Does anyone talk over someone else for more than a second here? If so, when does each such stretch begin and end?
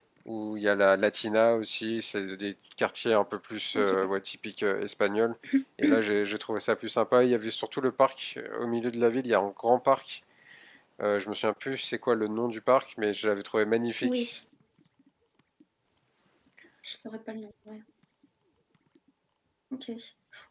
none

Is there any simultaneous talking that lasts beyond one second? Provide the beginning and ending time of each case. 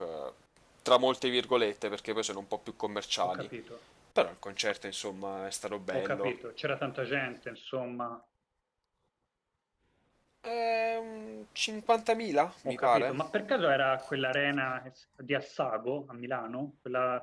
none

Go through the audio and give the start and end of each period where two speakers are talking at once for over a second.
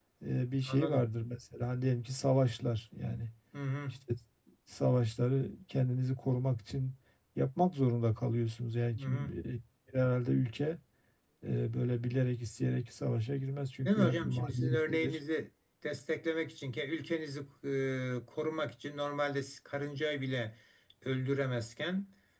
13.8-15.2

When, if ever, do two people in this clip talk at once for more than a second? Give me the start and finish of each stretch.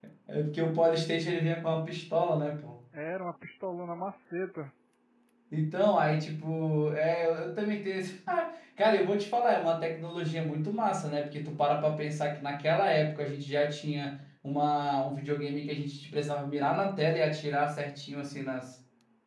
none

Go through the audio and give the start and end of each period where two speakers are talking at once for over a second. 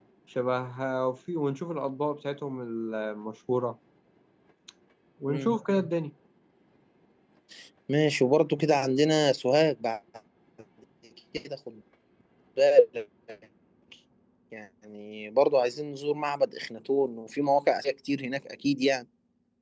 none

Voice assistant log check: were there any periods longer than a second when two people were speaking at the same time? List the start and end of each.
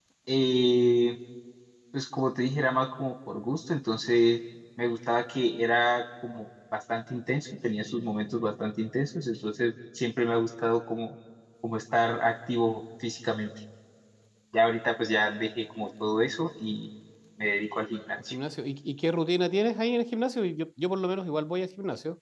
none

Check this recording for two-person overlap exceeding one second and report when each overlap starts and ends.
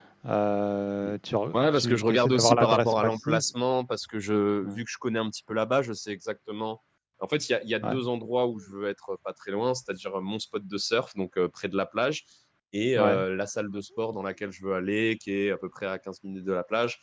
1.5-3.4

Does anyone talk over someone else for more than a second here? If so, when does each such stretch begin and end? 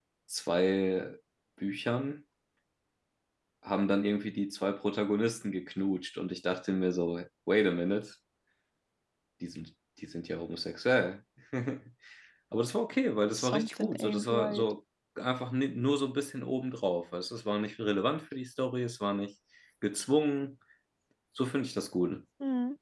13.3-14.7

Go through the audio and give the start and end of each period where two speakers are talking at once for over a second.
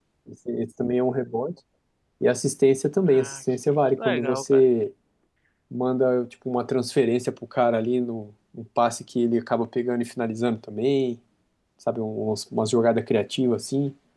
3.1-4.6

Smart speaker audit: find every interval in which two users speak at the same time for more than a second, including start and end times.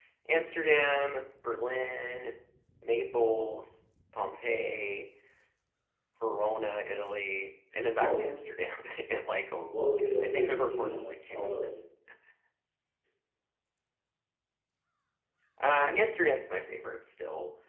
10.2-11.8

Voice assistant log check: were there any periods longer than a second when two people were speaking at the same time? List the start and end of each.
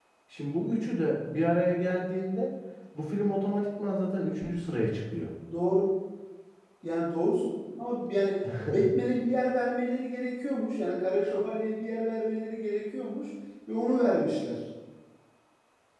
none

